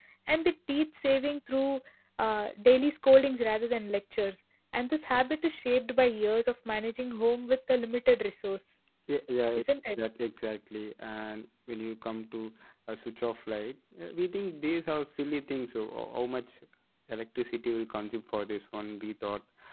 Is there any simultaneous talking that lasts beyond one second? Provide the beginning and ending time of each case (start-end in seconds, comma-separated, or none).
none